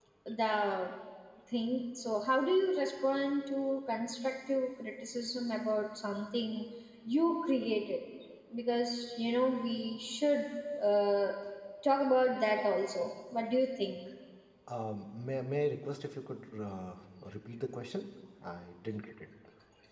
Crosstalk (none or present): none